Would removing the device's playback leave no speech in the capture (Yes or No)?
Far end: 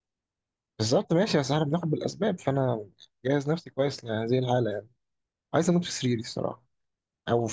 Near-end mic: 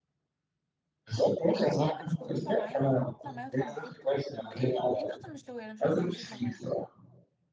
No